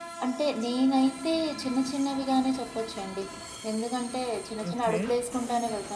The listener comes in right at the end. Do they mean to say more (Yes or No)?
No